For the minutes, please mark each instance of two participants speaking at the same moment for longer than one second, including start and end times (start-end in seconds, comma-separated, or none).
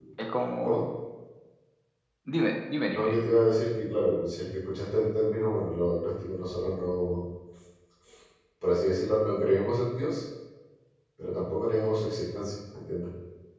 none